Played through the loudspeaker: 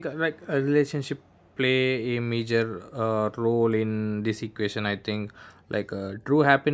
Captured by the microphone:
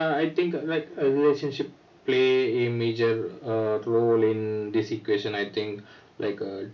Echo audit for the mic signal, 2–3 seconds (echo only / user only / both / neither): echo only